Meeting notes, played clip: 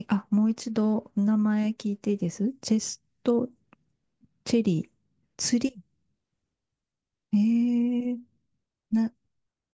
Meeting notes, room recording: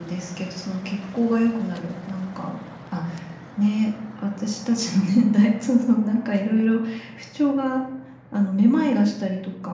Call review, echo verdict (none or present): none